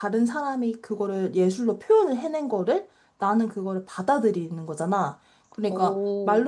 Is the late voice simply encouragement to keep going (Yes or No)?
Yes